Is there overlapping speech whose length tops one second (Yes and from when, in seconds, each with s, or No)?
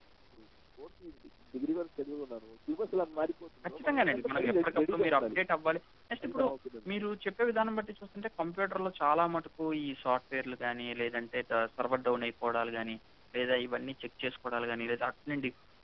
Yes, from 3.7 s